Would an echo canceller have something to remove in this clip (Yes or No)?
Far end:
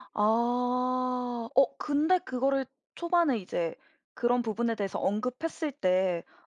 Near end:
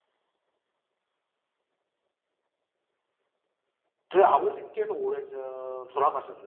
No